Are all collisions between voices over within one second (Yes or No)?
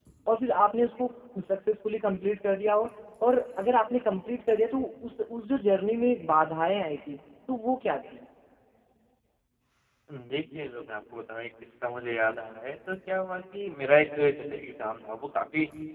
Yes